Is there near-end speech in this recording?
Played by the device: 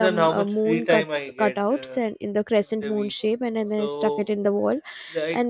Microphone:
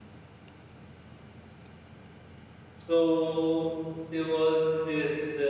Yes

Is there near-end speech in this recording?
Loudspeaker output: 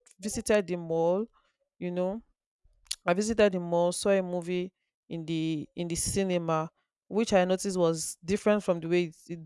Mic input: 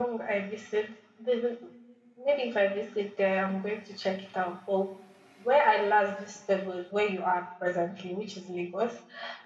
Yes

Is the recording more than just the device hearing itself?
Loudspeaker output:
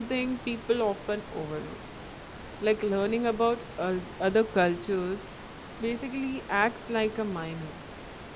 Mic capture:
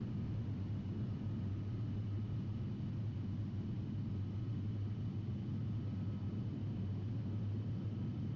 No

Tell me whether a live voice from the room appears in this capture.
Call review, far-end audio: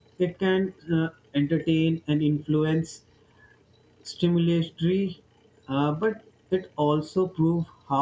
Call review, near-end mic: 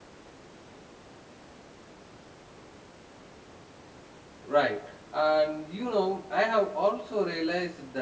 Yes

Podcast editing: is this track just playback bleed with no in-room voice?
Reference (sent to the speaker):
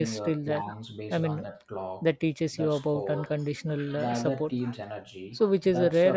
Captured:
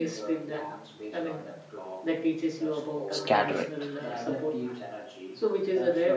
No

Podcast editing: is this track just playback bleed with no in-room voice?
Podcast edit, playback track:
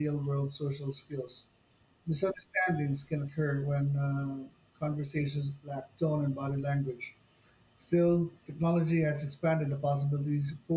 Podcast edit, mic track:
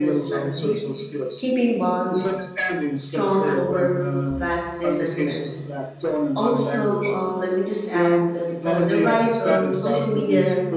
No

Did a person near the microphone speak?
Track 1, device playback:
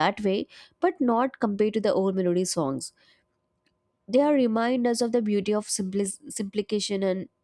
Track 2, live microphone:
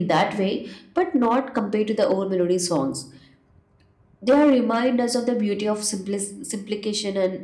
No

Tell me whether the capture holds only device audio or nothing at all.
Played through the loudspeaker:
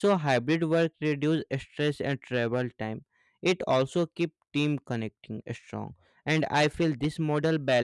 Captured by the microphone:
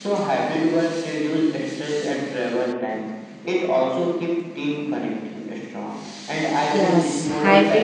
No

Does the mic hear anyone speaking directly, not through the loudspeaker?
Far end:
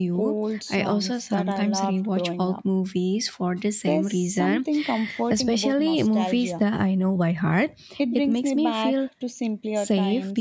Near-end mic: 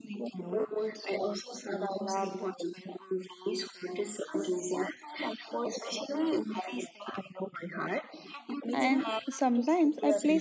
Yes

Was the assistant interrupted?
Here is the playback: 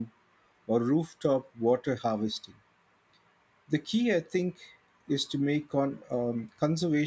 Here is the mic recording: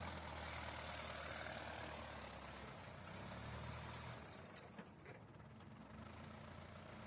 No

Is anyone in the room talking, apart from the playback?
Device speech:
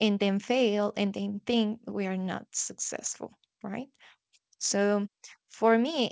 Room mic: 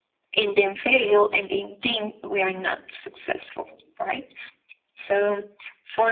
No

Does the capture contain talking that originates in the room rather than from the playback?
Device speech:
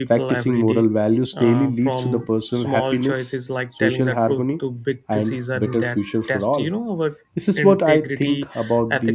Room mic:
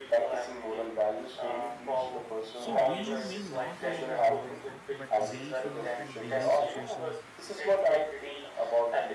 Yes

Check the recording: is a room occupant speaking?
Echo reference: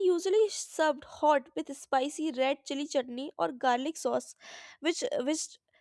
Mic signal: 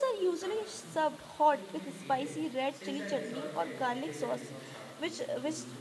Yes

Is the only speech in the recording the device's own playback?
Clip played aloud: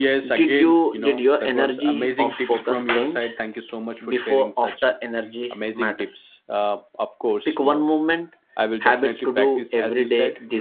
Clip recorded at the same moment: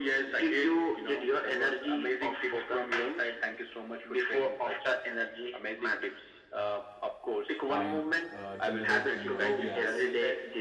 No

